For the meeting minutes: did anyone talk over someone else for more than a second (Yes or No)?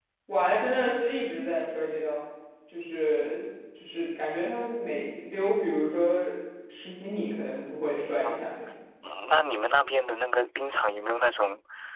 No